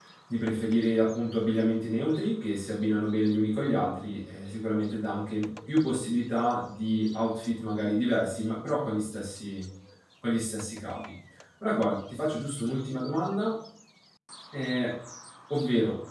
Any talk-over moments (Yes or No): No